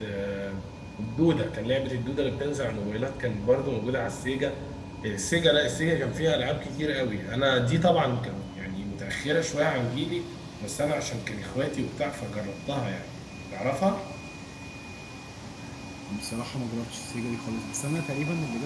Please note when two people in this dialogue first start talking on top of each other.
none

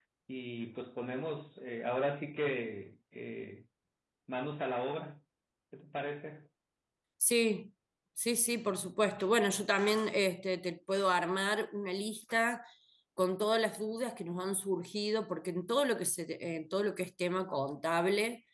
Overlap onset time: none

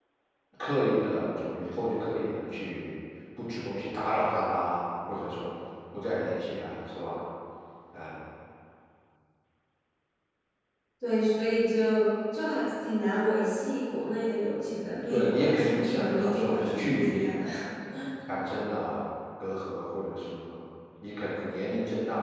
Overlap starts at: 15 s

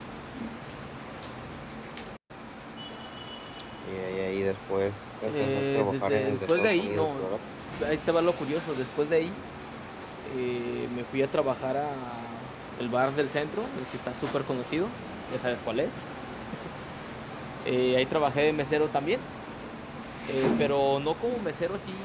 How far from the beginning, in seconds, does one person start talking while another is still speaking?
5 s

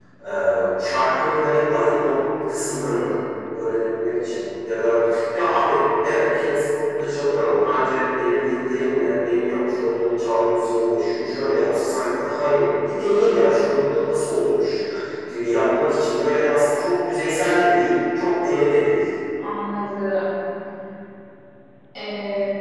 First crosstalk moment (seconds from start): none

